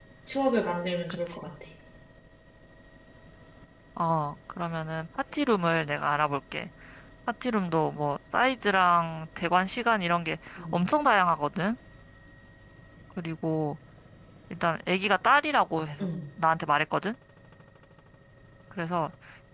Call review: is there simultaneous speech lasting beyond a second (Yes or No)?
No